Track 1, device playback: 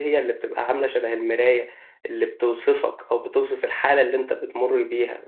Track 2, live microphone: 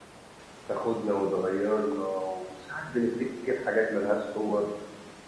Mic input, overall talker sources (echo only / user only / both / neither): user only